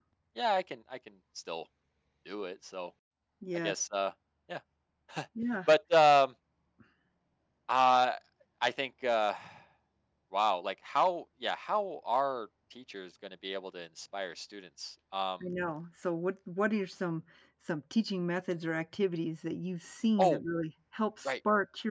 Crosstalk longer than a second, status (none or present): none